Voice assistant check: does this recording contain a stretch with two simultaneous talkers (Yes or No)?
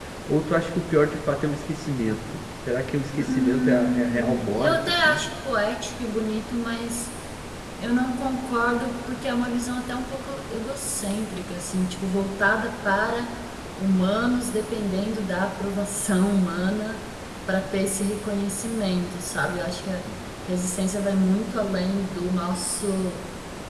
Yes